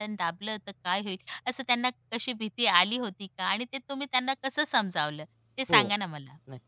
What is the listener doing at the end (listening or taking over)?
taking over